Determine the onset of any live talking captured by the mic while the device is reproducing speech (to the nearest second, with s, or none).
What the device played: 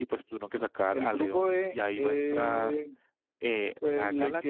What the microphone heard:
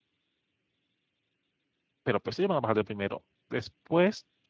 2 s